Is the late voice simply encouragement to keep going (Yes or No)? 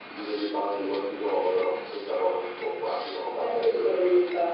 No